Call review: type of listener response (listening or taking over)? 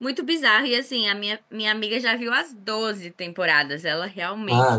taking over